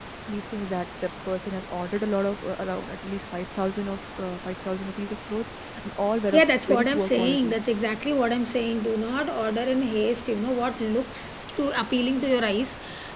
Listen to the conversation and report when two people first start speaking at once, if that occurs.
6.3 s

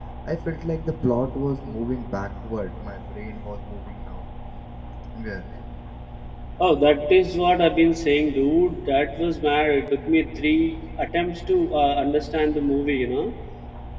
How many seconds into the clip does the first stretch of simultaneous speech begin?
none

